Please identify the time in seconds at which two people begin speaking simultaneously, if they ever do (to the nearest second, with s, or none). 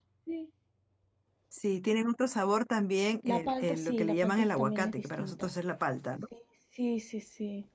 3 s